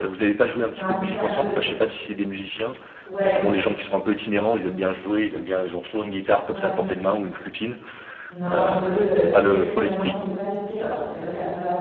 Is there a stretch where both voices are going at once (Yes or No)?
Yes